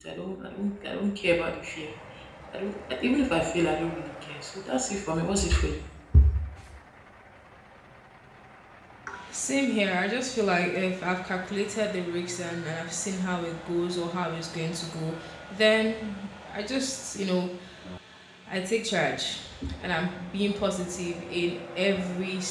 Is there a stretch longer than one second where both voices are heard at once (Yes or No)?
No